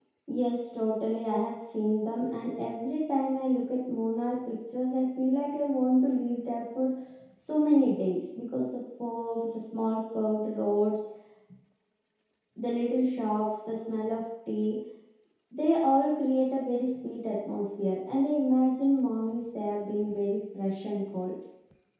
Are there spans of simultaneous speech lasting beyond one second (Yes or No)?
No